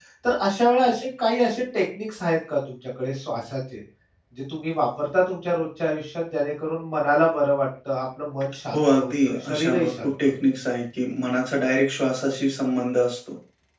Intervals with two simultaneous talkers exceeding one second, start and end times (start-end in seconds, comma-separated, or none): 8.7-10.3